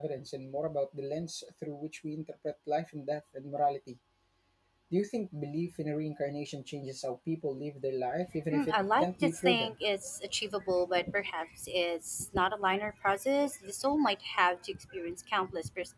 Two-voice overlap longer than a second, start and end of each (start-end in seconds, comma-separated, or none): 8.5-9.7